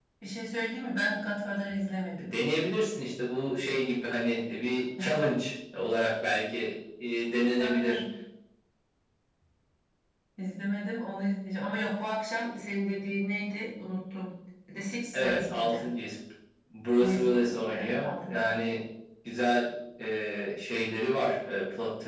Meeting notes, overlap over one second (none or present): present